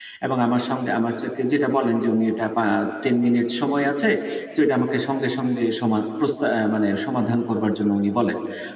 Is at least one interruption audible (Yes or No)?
No